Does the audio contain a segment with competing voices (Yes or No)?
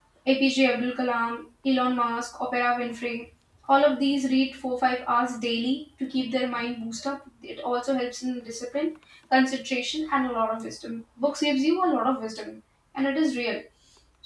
No